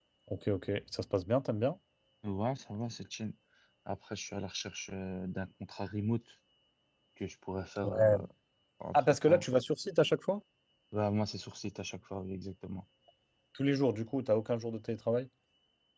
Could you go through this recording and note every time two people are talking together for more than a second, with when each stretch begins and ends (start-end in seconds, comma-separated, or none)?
none